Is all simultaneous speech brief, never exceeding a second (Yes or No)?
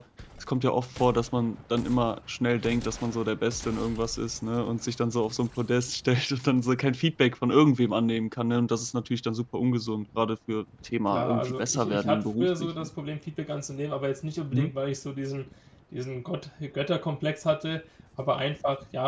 No